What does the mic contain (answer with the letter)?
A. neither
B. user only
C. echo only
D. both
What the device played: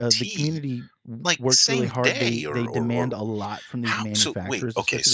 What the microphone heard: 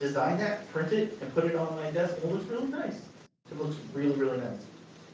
B